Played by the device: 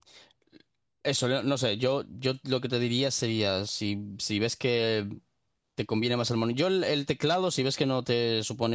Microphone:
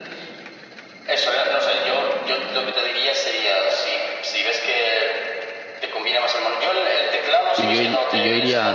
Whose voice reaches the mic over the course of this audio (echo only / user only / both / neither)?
both